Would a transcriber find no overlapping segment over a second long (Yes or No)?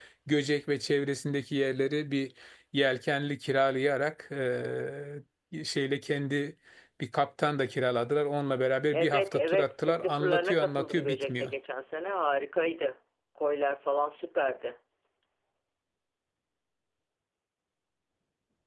No